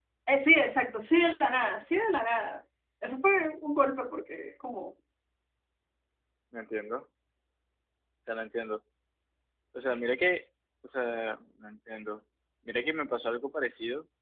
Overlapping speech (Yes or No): No